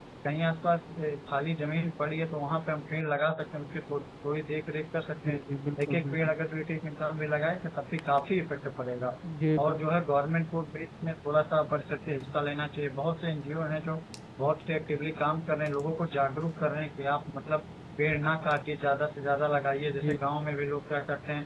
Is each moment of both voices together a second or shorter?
Yes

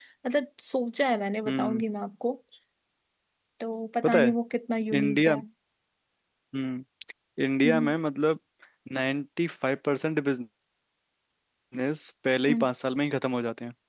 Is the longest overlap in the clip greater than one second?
No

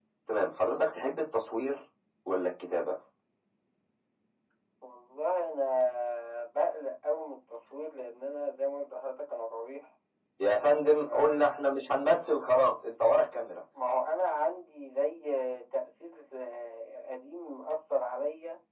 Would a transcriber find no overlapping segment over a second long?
Yes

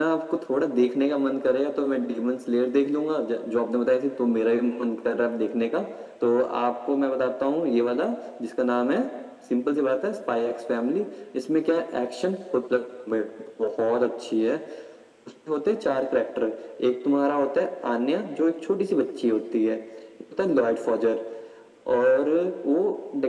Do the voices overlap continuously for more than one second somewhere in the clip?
No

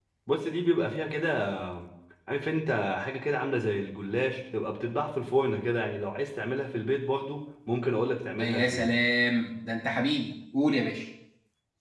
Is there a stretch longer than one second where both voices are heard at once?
No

